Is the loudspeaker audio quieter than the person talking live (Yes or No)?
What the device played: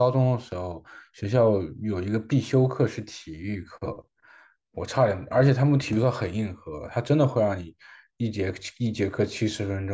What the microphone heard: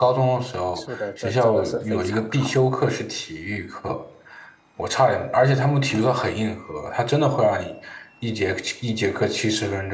No